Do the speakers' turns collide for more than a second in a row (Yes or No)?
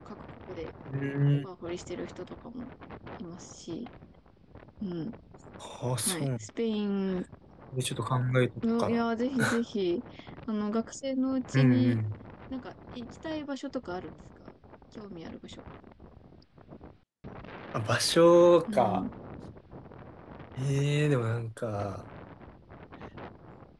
No